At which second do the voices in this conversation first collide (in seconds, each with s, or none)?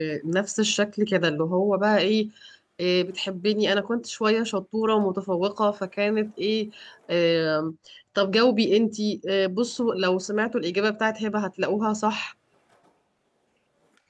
none